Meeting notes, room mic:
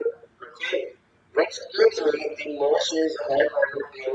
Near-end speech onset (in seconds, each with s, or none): none